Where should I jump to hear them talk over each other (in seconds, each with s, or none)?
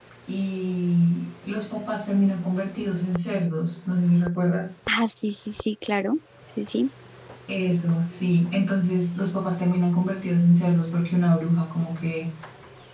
none